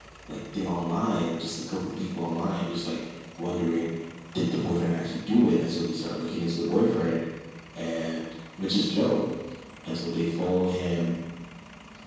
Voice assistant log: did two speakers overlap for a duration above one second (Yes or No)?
No